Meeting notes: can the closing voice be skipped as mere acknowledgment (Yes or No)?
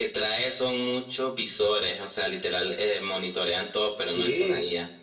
No